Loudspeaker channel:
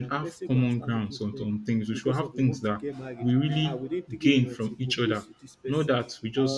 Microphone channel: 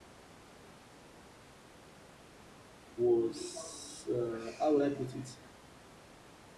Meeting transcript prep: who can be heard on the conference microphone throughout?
user only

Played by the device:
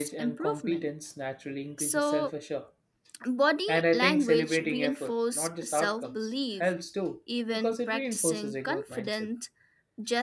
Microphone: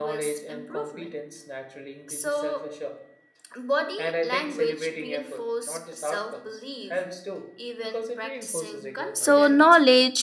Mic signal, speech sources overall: both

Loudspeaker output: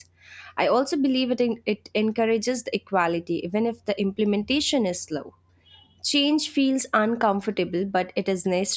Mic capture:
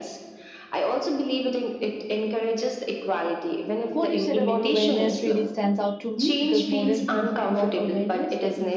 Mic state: both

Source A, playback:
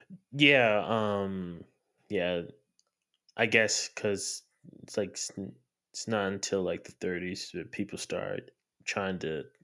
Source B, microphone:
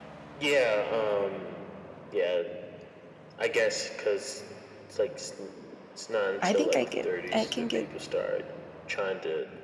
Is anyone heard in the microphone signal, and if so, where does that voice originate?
both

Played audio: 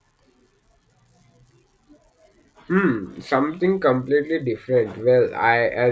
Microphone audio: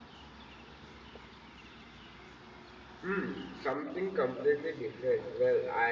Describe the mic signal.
echo only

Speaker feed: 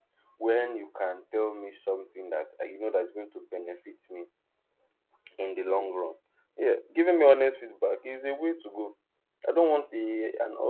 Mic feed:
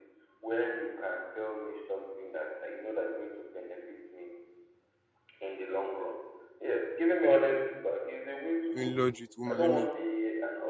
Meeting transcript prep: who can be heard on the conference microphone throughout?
both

